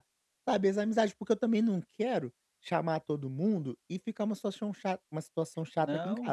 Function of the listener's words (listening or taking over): taking over